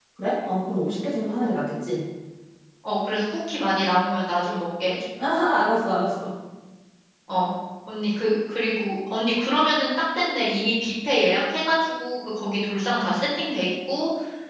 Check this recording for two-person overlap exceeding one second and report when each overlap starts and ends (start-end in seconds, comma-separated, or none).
none